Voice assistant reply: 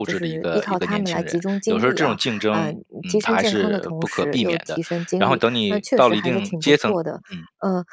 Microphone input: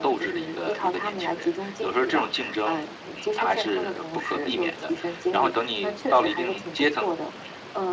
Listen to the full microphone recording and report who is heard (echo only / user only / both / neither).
echo only